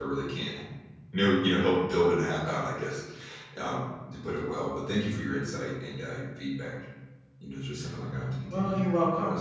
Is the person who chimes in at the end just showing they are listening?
No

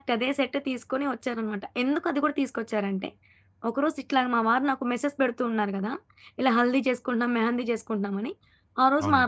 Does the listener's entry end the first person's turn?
No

